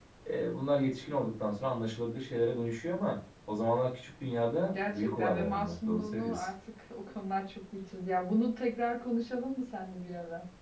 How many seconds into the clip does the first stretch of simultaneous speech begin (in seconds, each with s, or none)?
4.7 s